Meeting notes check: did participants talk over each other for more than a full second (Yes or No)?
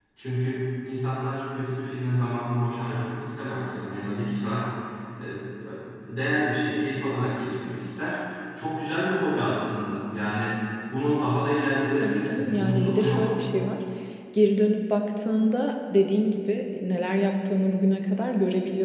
Yes